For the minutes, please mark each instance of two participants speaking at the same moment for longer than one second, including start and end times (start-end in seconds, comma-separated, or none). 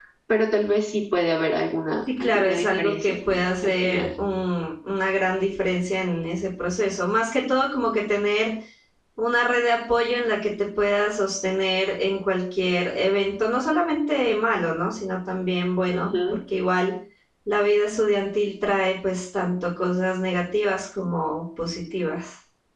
2.2-4.1